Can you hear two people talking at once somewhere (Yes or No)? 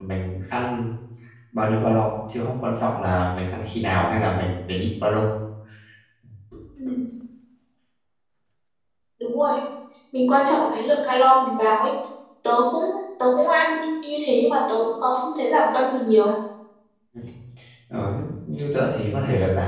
No